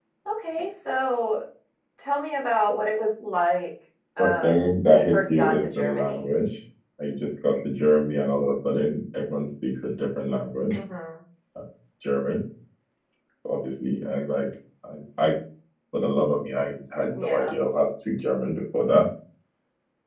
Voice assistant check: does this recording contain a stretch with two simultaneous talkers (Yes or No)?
Yes